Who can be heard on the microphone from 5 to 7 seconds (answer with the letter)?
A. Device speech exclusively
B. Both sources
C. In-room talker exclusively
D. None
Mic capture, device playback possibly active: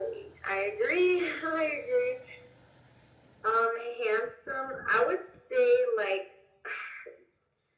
A